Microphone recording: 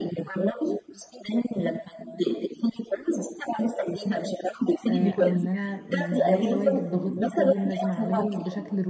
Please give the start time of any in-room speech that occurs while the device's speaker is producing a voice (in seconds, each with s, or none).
4.9 s